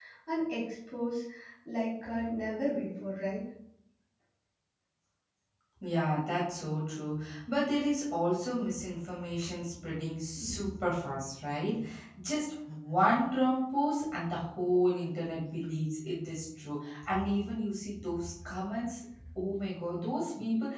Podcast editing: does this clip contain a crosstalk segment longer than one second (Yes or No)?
No